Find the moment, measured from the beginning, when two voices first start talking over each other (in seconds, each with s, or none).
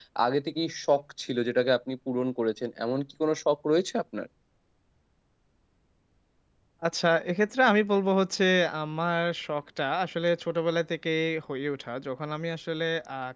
none